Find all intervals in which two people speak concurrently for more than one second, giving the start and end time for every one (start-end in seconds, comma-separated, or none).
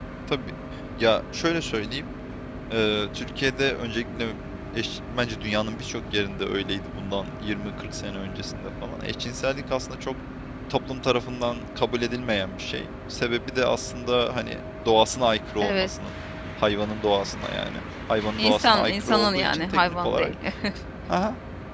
18.4-20.3